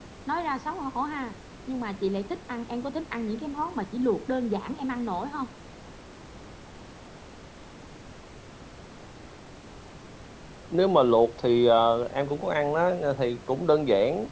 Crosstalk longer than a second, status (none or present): none